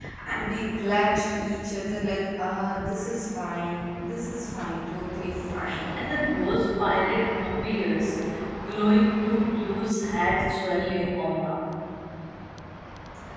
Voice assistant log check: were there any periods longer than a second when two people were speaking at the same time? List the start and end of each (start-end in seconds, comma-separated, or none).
none